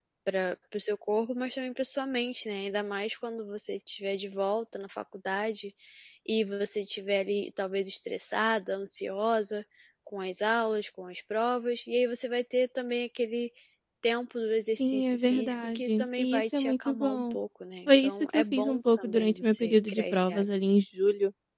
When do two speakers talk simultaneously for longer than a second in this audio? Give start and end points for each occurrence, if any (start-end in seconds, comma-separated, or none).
14.8-17.4, 17.9-20.4